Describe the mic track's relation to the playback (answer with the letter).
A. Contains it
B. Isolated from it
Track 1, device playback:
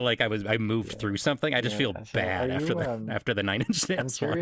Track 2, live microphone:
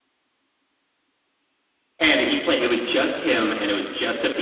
B